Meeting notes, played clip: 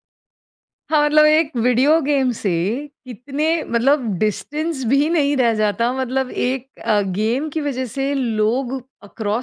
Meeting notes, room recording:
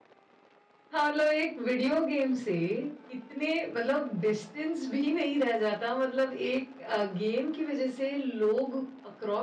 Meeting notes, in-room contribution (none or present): none